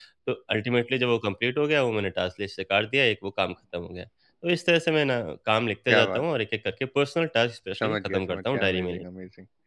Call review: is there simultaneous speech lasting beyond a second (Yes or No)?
Yes